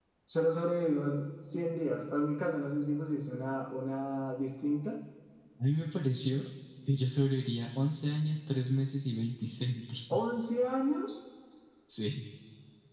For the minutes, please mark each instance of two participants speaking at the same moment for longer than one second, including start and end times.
none

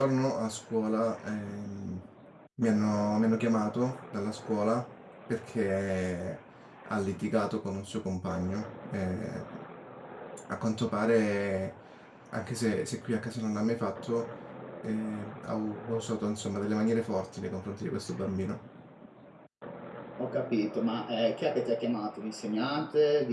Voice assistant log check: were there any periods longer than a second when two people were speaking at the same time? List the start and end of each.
none

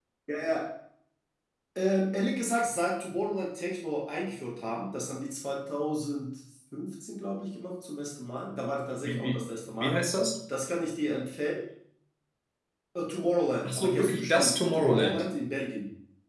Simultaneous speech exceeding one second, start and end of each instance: 13.7-15.3

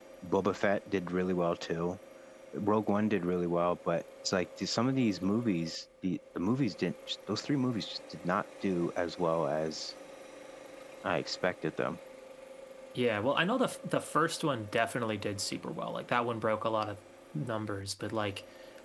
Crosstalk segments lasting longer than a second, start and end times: none

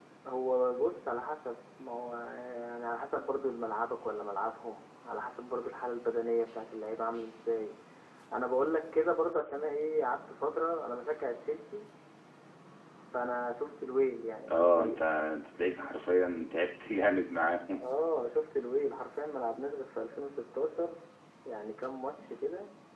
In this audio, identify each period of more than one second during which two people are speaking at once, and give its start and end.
none

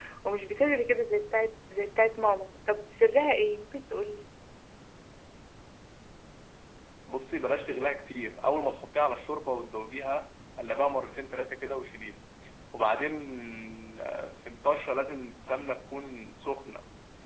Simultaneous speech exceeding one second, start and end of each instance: none

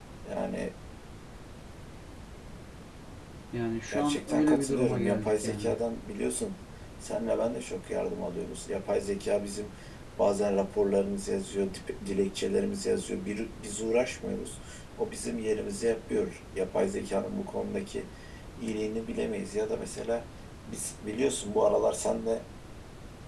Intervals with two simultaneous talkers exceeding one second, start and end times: 3.9-5.7

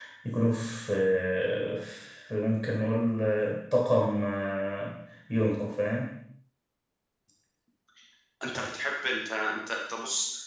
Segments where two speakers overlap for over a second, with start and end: none

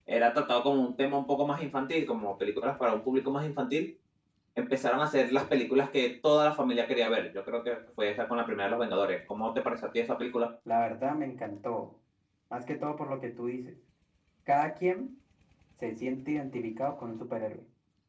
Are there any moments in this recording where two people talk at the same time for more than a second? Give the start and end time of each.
none

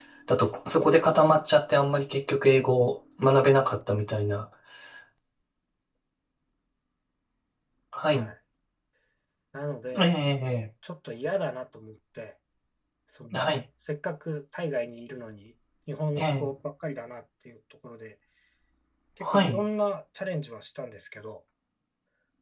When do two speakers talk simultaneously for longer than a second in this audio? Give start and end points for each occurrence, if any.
none

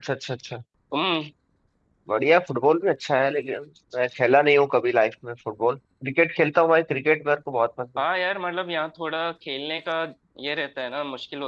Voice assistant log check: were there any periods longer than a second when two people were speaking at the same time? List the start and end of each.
none

